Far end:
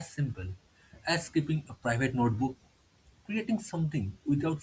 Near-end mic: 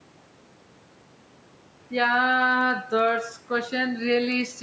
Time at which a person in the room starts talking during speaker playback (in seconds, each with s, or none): 1.9 s